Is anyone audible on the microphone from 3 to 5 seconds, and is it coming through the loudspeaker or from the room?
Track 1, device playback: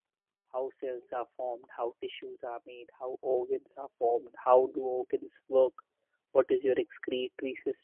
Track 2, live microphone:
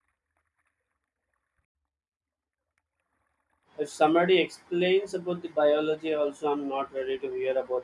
user only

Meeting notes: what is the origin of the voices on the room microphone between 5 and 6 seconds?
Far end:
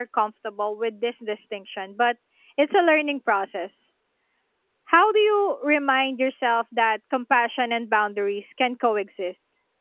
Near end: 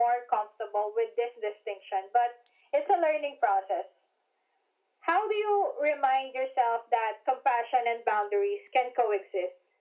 echo only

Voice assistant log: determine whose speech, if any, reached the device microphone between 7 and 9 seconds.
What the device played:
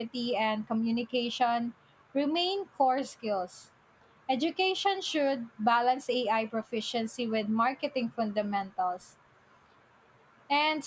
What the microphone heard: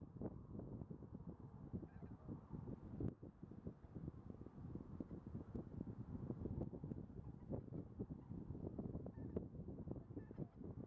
neither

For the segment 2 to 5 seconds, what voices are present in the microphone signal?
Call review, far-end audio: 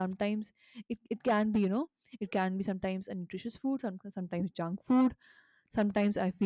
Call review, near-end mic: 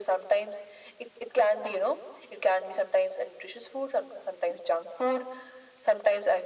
echo only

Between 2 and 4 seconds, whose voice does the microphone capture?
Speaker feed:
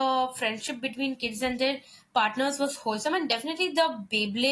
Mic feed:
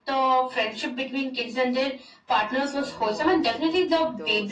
both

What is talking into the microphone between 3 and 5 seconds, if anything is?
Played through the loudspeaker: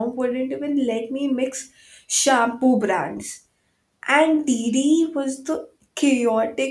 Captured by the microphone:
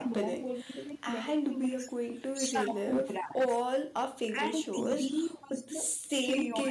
both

